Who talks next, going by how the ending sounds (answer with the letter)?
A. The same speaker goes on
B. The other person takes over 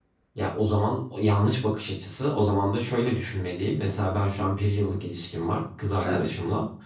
A